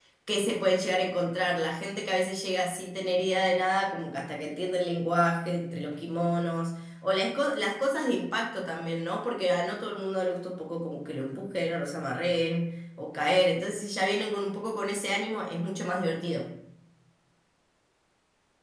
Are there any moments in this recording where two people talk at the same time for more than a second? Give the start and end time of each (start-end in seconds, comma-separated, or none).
none